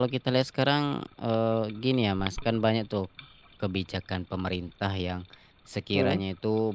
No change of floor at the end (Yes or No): Yes